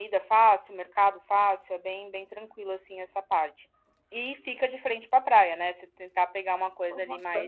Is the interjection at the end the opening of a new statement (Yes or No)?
No